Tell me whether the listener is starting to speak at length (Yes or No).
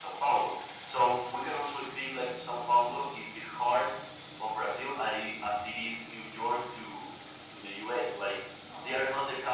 No